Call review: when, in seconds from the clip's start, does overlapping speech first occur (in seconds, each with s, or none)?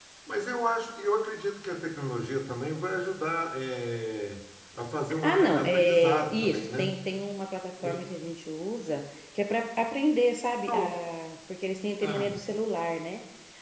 5.2 s